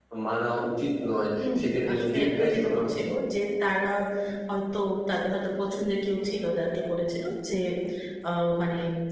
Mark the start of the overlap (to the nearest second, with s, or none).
1 s